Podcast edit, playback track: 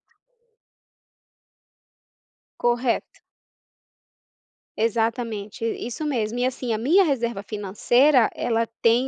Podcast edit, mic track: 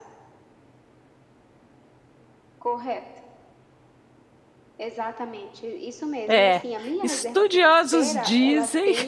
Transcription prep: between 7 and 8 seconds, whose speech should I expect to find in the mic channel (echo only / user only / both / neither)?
both